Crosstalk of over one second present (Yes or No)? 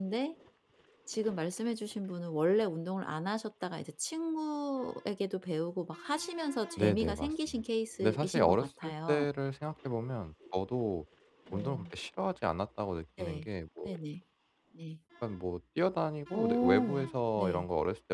Yes